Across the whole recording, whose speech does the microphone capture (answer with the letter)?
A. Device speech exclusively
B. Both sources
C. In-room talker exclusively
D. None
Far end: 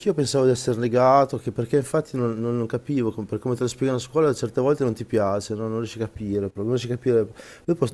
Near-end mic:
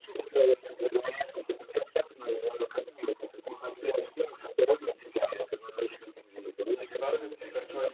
B